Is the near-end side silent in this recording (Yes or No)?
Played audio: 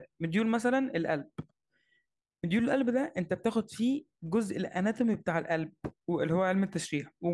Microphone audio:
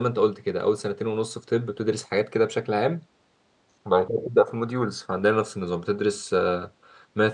No